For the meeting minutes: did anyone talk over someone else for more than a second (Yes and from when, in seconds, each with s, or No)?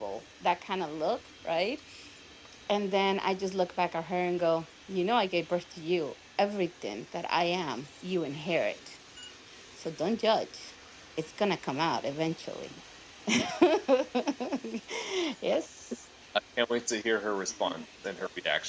No